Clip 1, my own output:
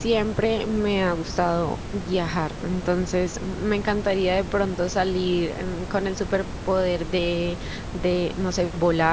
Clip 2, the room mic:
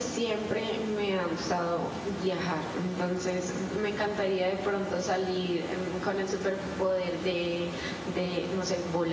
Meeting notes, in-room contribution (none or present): none